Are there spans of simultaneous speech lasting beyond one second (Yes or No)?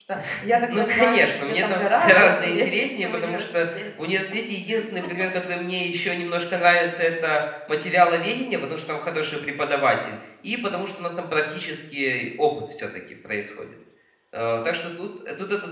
Yes